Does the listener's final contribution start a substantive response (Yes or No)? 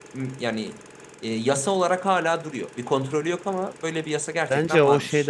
Yes